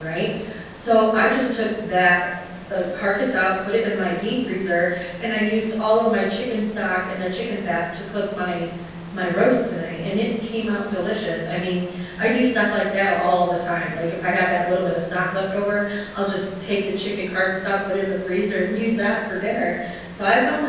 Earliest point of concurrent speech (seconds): none

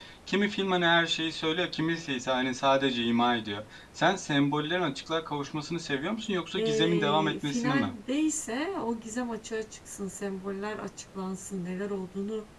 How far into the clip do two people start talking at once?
6.6 s

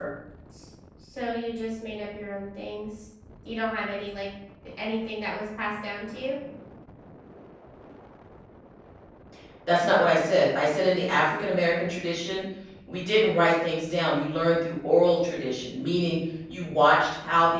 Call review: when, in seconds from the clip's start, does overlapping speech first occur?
none

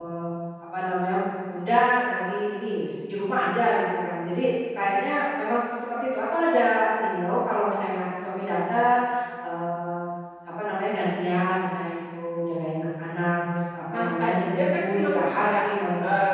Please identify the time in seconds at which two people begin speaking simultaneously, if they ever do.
13.9 s

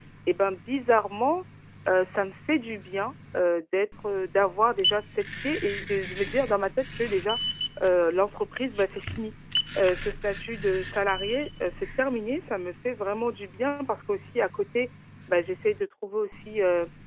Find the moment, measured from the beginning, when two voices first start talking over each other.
none

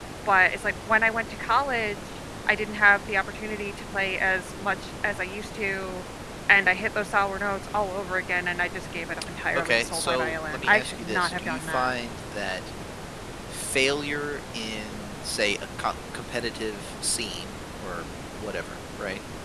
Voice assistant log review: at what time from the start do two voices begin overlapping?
9.6 s

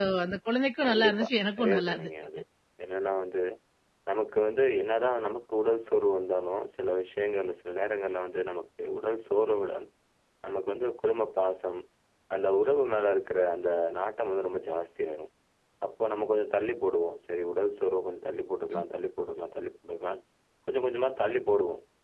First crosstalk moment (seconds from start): 0.9 s

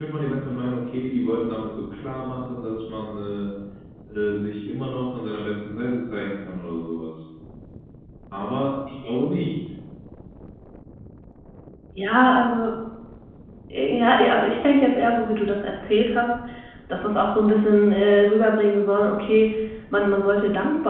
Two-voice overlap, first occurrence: none

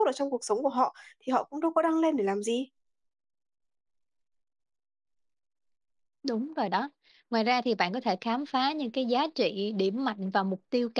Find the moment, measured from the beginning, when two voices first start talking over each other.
none

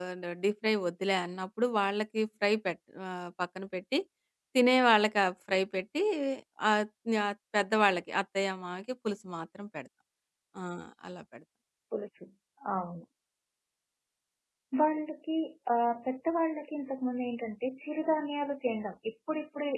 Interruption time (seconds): none

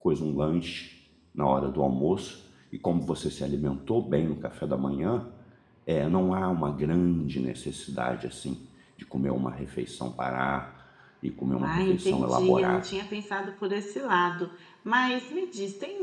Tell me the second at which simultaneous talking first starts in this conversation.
11.6 s

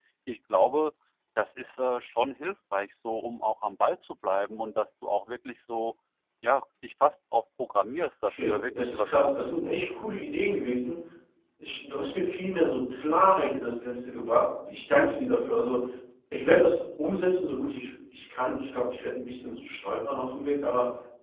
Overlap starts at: 8.3 s

